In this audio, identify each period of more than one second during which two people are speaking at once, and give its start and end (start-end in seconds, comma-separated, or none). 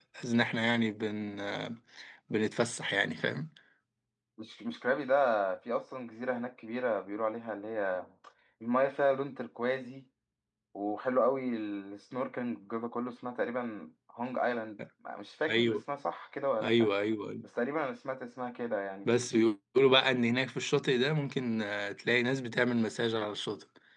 none